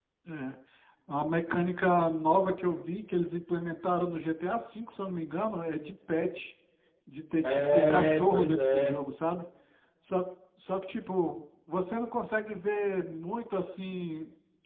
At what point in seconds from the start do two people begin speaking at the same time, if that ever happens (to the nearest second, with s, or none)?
7 s